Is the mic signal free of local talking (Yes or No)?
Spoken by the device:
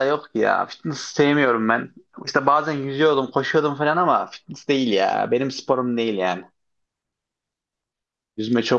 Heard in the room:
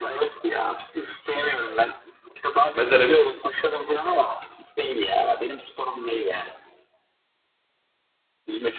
No